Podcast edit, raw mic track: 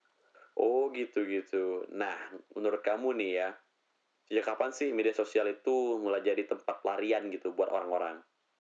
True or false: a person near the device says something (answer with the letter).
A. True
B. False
B